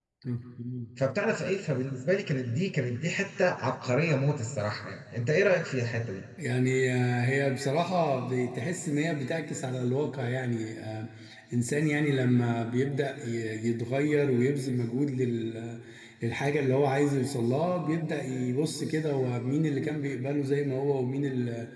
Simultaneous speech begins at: none

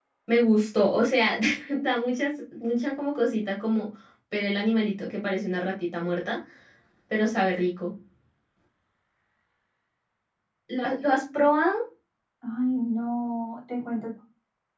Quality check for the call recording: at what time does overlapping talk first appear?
none

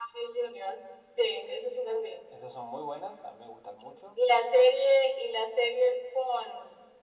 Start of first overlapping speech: none

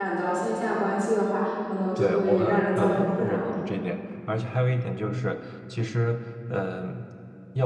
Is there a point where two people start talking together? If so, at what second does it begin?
2.0 s

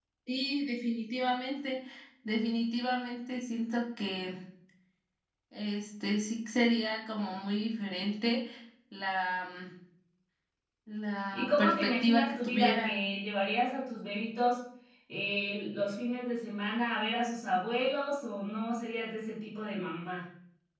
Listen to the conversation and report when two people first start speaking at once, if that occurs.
11.3 s

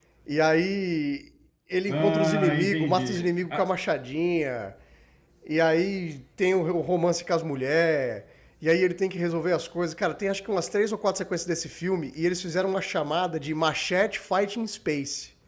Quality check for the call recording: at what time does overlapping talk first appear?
1.9 s

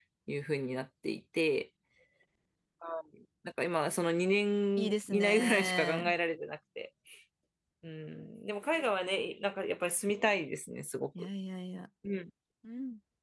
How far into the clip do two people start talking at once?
4.8 s

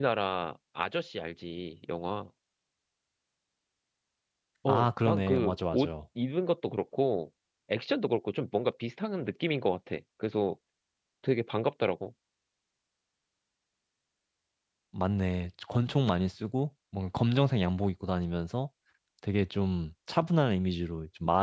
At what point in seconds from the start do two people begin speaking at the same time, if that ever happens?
4.7 s

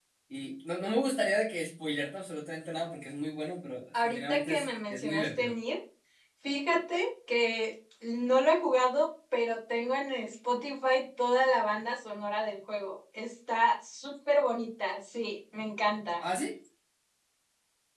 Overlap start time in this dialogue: 3.9 s

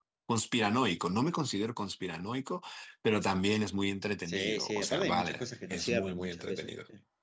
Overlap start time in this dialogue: 4.2 s

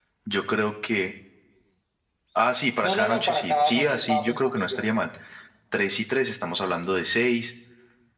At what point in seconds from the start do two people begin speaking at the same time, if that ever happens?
2.8 s

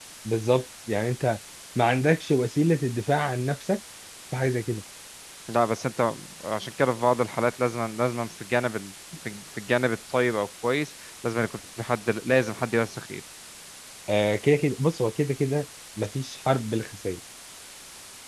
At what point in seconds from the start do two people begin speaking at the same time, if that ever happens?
none

